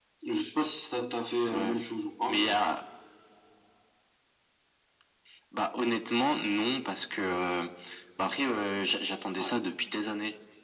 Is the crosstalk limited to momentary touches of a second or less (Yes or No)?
Yes